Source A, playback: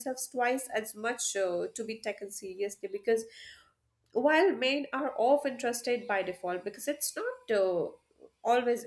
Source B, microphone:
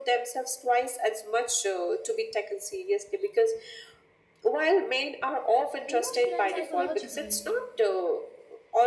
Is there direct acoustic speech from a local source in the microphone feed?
Yes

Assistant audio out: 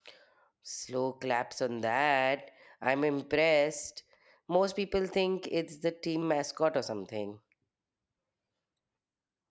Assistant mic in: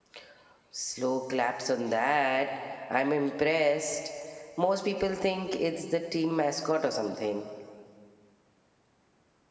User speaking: No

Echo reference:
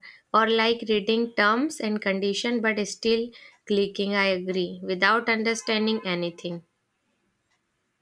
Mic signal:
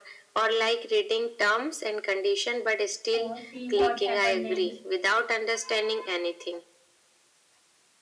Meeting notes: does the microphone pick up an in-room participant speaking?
Yes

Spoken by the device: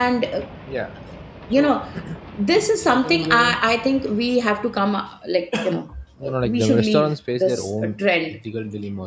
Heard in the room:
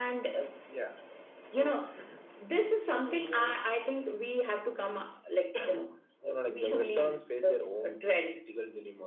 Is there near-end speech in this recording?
No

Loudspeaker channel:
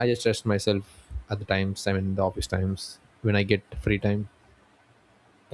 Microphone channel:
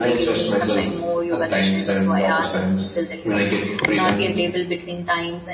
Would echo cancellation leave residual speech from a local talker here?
Yes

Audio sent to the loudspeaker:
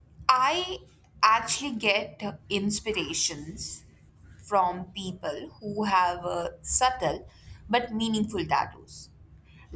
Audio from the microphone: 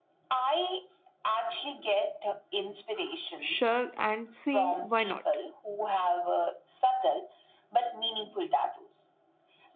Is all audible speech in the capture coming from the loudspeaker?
No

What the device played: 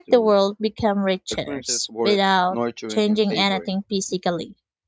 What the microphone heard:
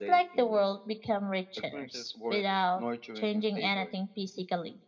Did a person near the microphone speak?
No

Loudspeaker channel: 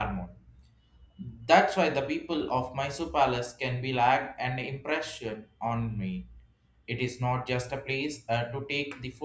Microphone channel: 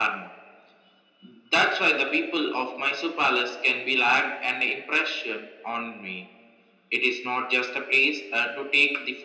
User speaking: No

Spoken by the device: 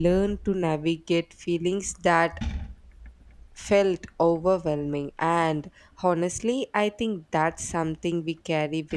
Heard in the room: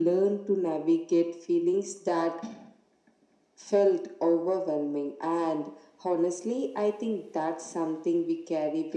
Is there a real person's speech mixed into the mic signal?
No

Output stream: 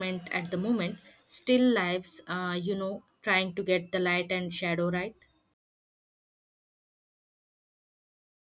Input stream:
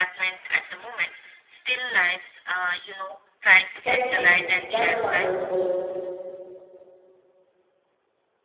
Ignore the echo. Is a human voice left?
Yes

